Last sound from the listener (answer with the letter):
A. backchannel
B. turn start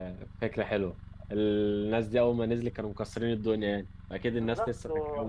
B